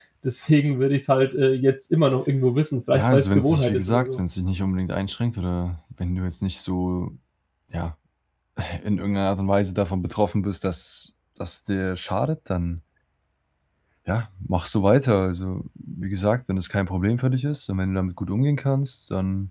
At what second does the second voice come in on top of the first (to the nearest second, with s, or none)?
3 s